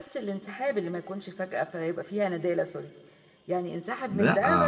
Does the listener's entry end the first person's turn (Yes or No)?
Yes